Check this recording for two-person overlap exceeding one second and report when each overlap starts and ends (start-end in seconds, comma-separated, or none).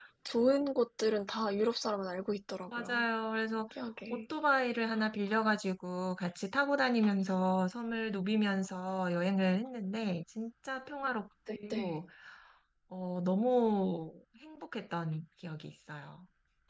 none